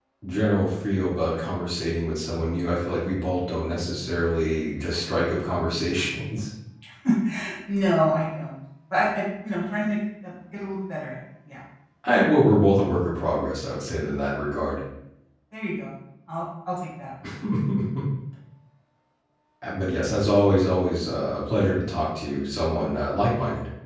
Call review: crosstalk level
none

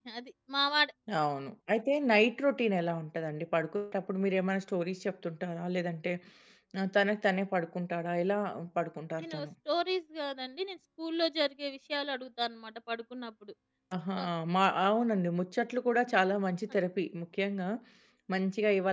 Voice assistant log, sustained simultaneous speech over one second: none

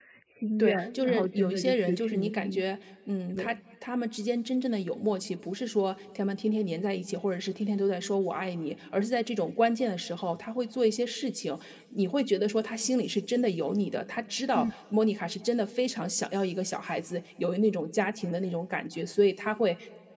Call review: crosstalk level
present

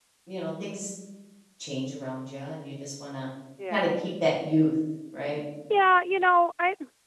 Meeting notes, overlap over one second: none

